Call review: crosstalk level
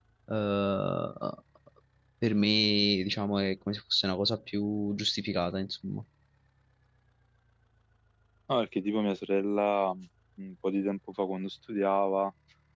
none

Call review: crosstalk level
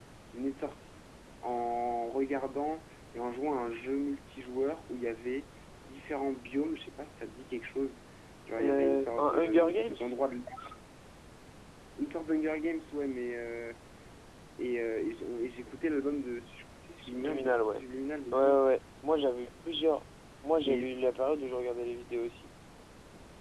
present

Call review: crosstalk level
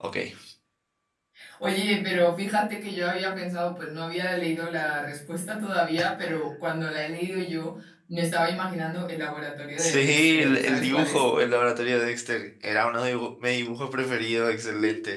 present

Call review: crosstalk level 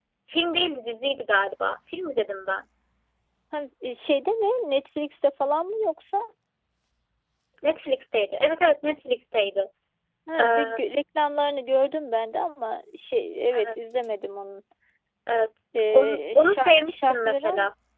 present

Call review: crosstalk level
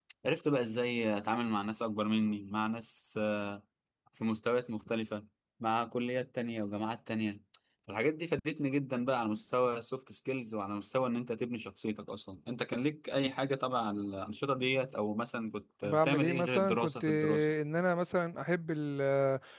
present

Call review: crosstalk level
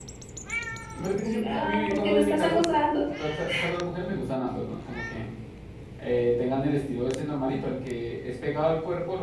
present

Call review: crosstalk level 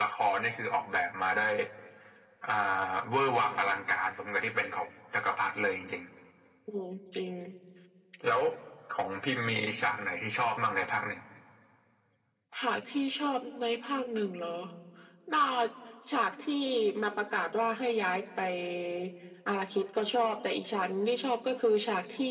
none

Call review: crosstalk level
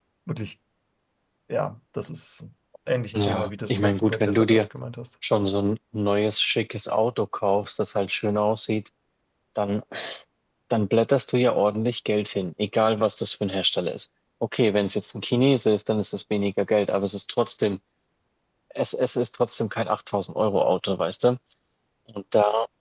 present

